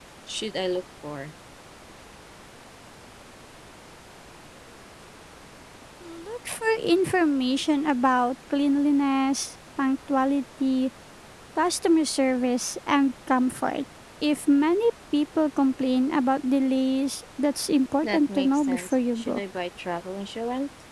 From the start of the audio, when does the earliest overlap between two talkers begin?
18 s

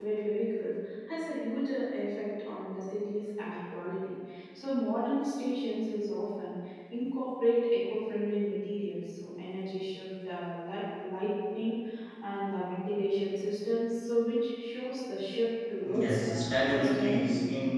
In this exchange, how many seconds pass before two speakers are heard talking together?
16 s

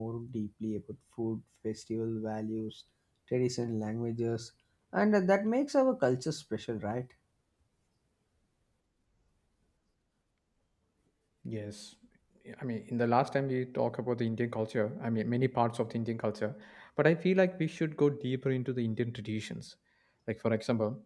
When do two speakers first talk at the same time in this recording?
none

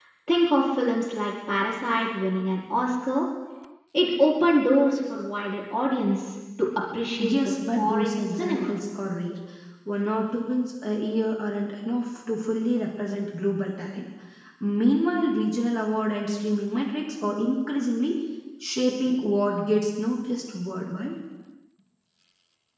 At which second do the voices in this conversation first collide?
7 s

